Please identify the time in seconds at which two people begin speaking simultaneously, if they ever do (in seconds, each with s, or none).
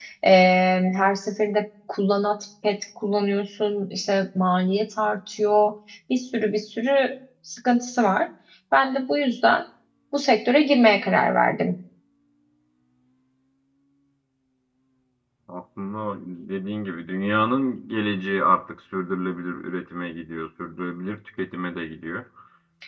none